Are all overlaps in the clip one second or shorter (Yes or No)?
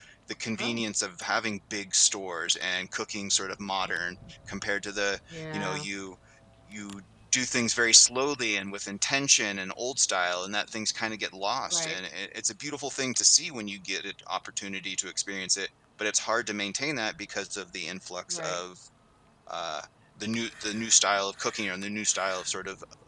Yes